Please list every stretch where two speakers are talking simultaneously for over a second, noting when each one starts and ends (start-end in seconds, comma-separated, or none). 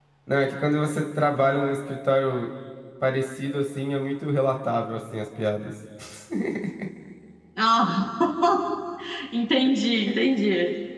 none